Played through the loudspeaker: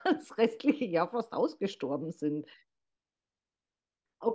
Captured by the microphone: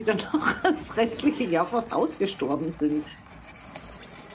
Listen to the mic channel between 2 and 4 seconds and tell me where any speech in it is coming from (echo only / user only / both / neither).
echo only